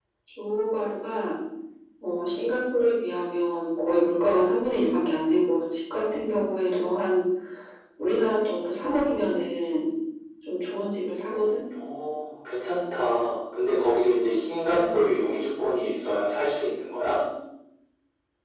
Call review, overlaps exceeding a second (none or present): none